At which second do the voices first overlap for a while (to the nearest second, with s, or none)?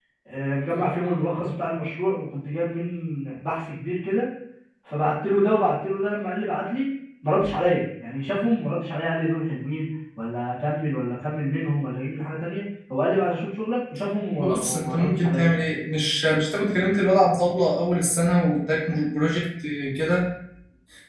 14 s